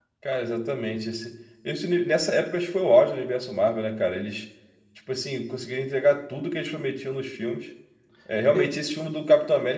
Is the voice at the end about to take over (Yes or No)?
No